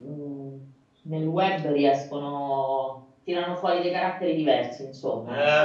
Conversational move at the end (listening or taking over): taking over